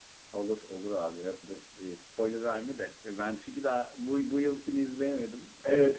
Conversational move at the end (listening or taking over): taking over